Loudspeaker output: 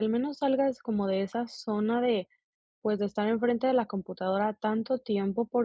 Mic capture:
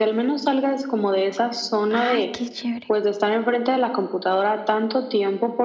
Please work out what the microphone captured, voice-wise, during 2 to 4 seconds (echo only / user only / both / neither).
both